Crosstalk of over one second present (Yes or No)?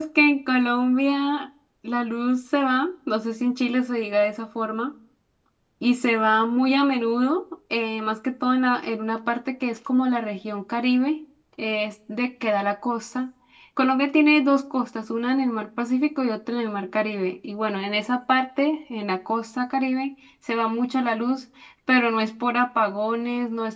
No